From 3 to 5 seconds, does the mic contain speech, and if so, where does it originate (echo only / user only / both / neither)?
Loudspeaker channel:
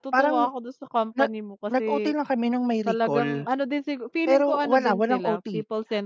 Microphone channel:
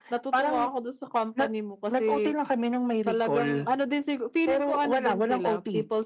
echo only